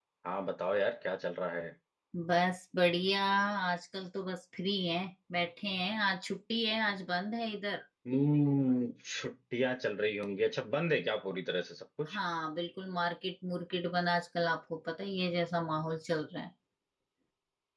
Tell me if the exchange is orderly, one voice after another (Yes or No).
Yes